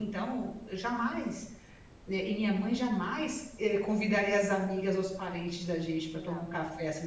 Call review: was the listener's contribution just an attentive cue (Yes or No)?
Yes